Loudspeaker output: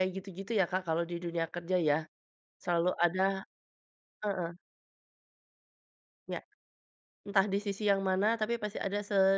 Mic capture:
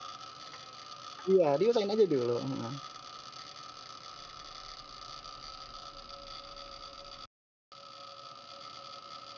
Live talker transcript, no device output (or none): Iya, diusahain aja dulu, heeh.